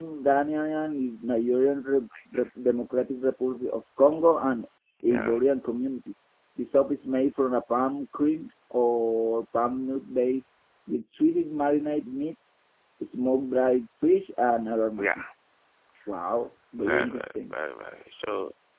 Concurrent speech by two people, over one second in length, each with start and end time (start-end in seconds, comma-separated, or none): none